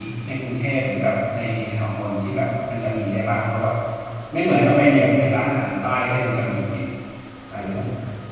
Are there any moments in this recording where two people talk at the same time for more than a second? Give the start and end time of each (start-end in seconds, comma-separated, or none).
none